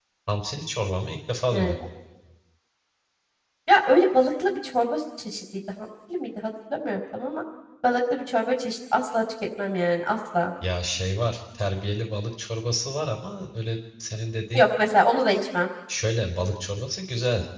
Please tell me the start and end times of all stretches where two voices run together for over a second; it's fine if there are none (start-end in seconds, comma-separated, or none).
none